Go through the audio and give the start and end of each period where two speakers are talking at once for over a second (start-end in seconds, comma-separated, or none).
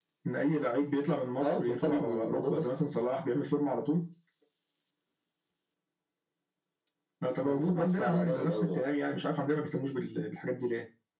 1.4-2.6, 7.4-8.8